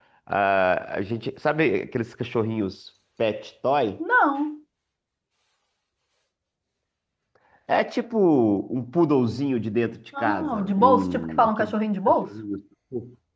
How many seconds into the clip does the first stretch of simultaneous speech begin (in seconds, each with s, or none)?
10.1 s